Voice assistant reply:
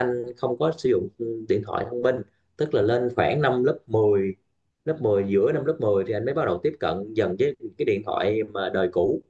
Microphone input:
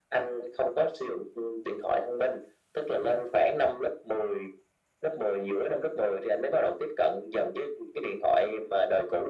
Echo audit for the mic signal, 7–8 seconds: echo only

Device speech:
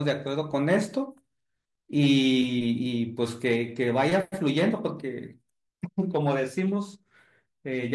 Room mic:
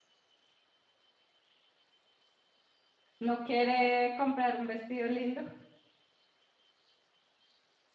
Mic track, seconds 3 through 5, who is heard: user only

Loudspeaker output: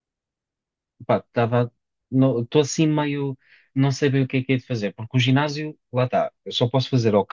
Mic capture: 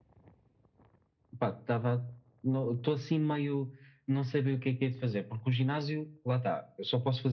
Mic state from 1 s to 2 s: echo only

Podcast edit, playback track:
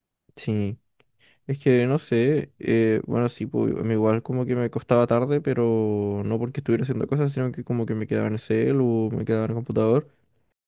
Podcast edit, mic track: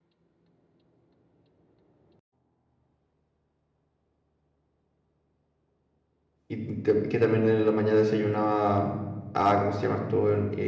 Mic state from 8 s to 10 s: user only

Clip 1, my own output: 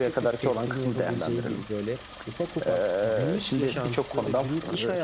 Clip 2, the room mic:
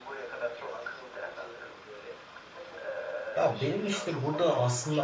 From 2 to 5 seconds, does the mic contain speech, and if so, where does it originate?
both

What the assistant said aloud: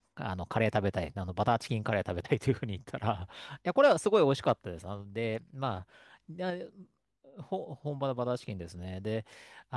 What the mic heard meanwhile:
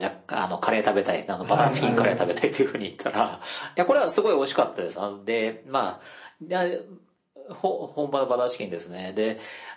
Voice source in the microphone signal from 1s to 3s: both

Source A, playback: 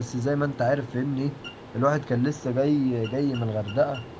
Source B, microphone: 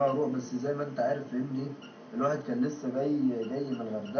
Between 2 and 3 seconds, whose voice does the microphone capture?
echo only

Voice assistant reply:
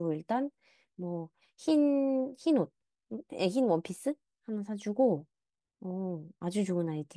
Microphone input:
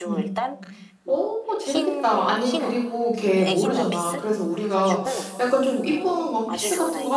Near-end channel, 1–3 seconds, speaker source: both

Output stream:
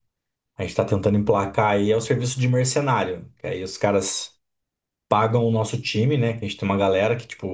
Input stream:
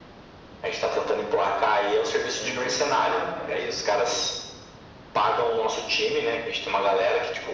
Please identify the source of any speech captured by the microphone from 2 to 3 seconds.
both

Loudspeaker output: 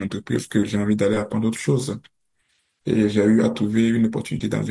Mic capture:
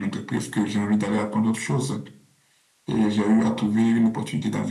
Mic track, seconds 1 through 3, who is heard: echo only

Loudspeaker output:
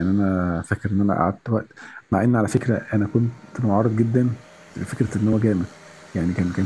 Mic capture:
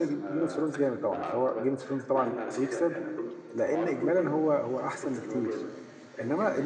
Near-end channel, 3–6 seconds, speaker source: both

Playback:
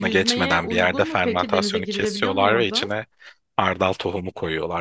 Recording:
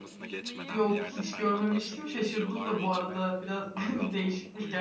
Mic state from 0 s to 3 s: both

